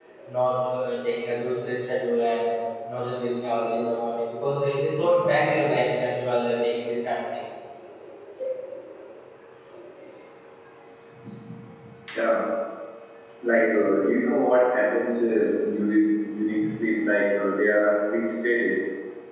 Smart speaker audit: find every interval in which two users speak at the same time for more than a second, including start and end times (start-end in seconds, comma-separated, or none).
none